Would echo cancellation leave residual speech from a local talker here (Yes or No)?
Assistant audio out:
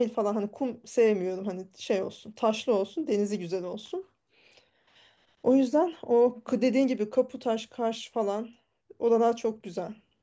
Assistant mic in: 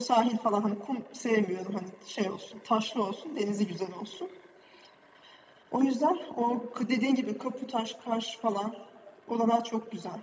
No